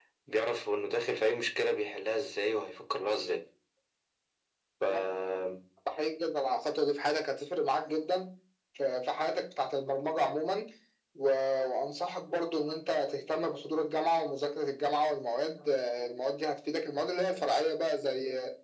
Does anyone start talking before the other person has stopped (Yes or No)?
No